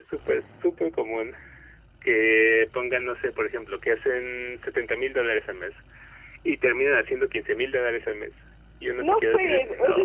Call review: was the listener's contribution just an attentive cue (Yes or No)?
No